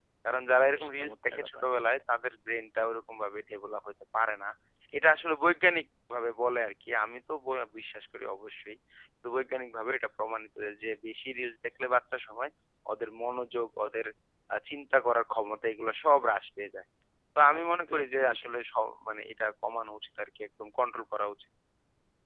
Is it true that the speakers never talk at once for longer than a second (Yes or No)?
No